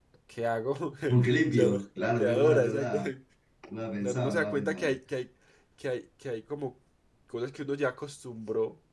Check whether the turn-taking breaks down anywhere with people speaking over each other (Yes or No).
Yes